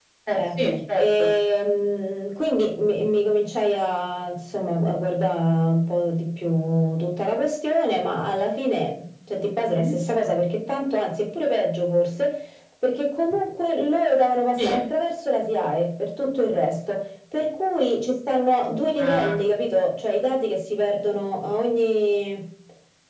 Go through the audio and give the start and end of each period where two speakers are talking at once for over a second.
none

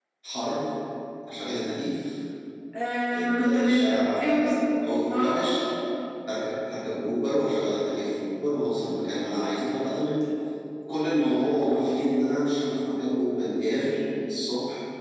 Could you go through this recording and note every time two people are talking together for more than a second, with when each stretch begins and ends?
3.1-4.6

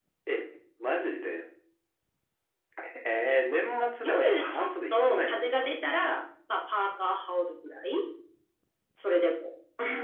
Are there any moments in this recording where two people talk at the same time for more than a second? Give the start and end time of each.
4.0-5.7

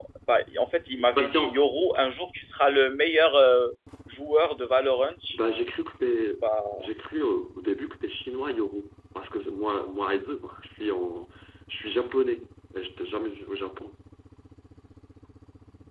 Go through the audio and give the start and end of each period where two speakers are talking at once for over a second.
none

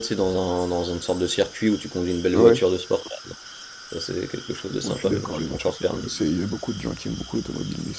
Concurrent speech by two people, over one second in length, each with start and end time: 4.8-6.1

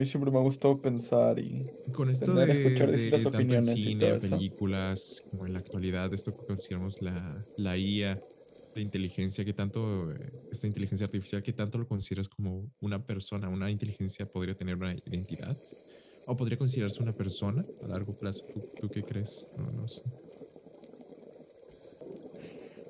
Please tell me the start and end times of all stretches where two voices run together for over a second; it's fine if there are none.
2.2-4.4

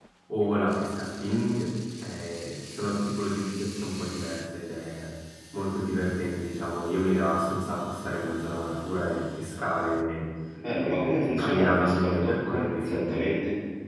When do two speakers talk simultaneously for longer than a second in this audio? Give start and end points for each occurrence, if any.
10.7-13.2

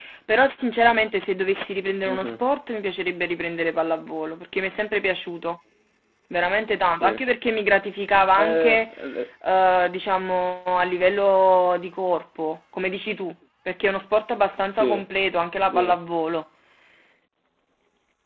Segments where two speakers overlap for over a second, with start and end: none

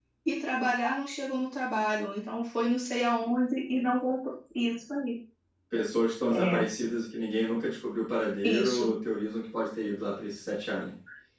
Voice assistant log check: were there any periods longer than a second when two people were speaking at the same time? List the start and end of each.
none

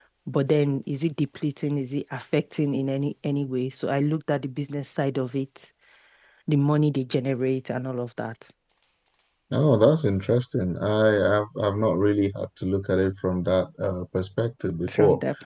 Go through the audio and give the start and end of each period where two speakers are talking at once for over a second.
none

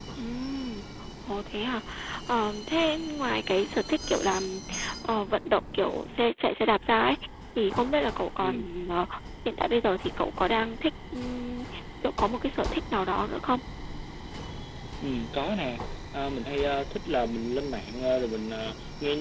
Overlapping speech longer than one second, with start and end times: none

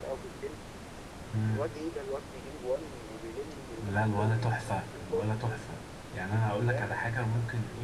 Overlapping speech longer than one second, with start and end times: 3.9-5.3

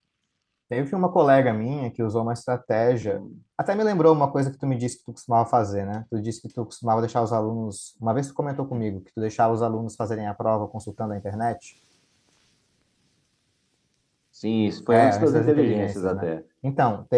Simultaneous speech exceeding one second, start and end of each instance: 14.9-16.3

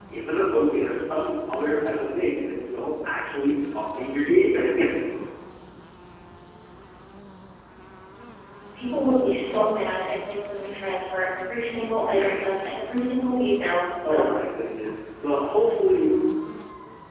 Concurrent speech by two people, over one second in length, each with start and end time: none

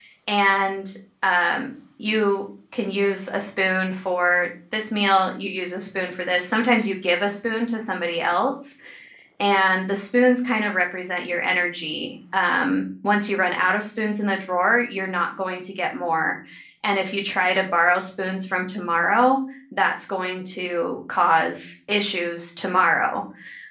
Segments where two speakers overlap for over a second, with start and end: none

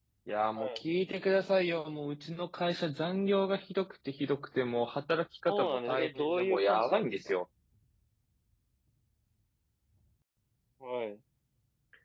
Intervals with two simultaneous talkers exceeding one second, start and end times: 5.5-7.1

